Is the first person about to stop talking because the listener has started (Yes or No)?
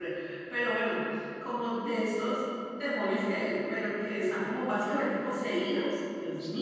No